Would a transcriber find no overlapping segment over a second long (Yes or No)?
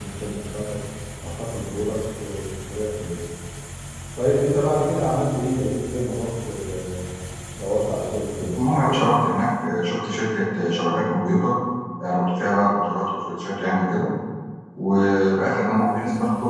Yes